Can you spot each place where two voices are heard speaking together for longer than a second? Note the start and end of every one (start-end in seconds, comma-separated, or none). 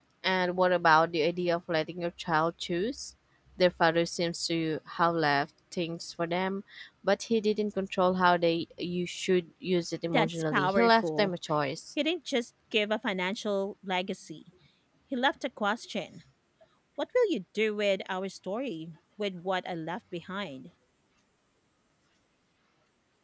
10.1-11.3